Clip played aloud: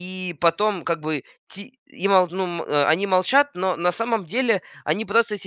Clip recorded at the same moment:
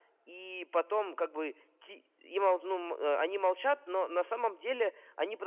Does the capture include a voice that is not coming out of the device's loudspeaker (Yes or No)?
No